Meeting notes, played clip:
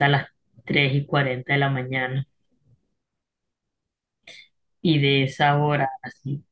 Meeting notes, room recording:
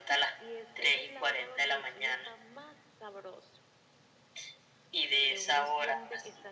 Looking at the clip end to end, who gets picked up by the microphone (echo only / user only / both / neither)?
both